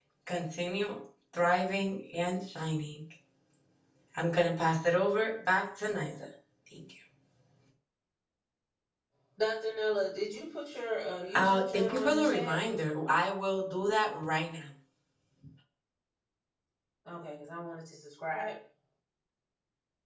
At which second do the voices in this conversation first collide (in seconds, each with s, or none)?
11.3 s